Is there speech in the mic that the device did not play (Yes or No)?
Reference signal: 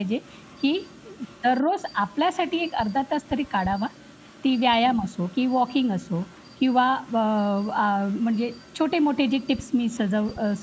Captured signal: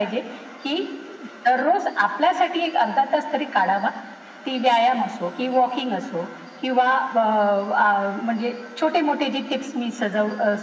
No